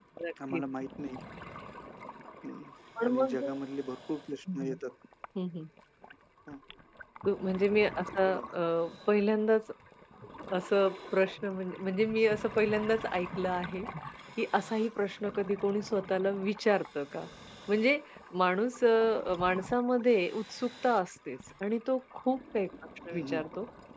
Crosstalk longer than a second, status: none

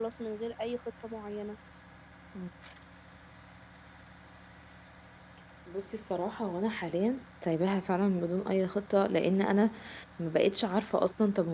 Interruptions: none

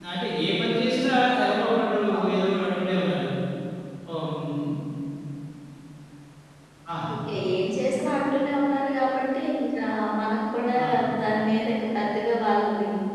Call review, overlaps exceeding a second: none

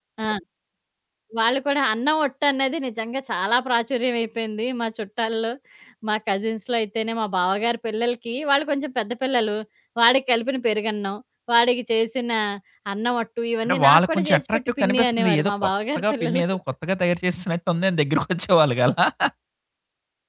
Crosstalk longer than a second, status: present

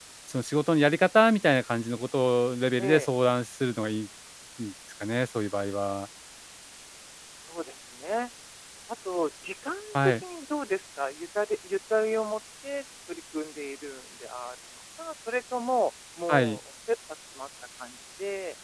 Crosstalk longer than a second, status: none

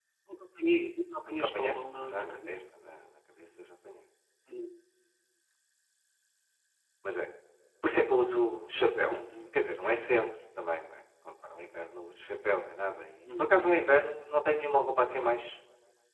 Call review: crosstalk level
present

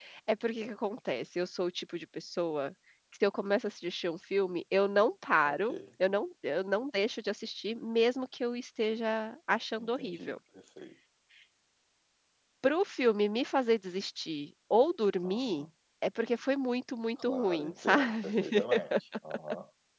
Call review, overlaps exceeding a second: present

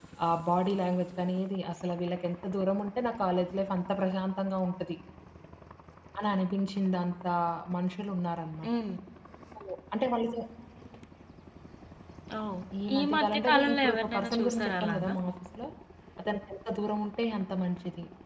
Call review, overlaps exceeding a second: present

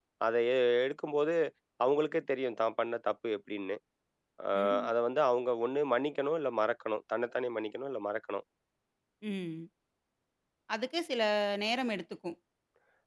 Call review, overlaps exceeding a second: none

